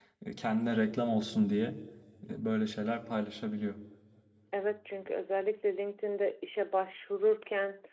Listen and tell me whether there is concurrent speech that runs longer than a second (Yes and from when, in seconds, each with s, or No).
No